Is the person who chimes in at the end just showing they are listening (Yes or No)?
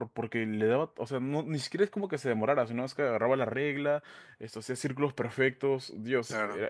Yes